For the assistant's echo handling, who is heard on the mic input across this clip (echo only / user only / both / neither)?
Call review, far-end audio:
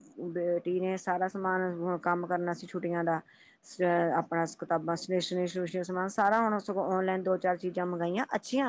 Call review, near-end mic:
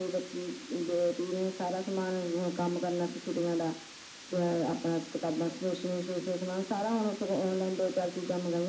echo only